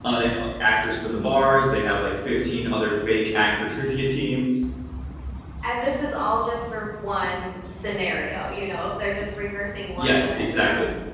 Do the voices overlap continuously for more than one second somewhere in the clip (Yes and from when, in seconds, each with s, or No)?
No